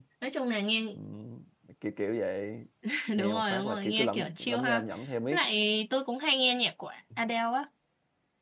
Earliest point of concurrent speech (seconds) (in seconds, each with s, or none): 3.2 s